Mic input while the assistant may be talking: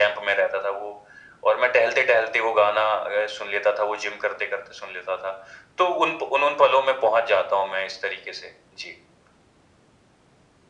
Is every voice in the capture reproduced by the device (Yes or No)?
Yes